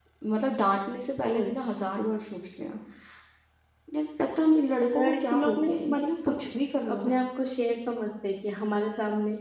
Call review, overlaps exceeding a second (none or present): present